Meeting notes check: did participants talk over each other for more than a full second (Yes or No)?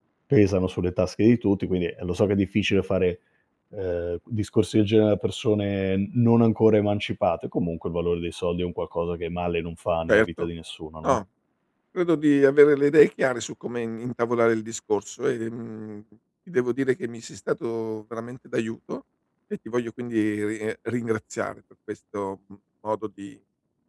No